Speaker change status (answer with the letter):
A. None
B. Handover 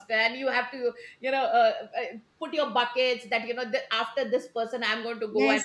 B